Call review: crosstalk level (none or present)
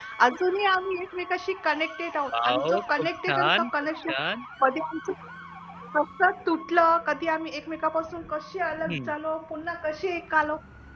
present